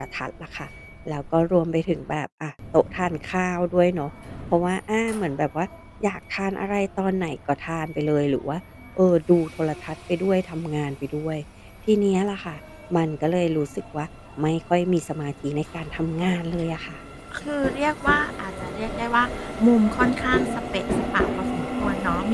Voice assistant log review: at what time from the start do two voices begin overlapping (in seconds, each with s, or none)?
none